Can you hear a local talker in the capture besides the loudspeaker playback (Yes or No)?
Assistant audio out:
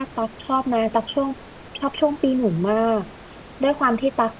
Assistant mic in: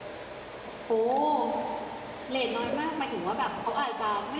Yes